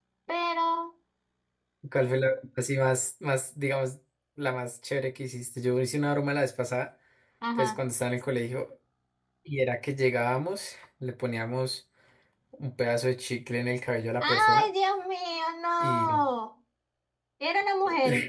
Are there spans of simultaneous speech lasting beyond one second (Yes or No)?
No